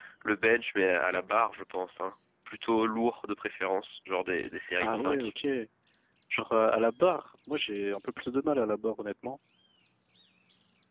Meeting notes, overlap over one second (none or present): none